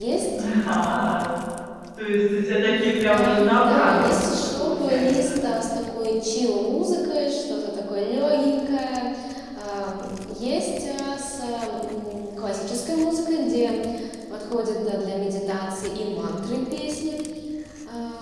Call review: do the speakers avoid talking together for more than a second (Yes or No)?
No